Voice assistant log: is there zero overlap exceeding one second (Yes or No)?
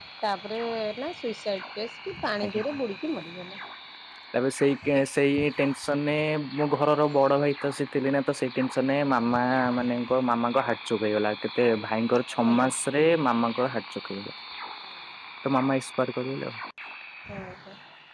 Yes